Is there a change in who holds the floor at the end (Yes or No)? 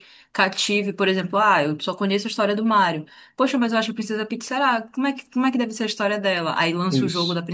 No